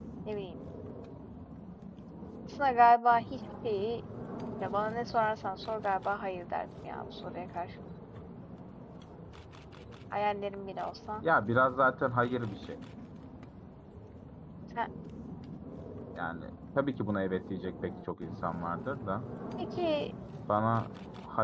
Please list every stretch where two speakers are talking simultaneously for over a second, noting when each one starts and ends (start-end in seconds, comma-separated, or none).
none